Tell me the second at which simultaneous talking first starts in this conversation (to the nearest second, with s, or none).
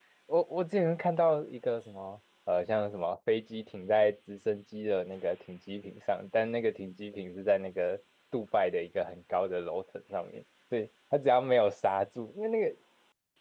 none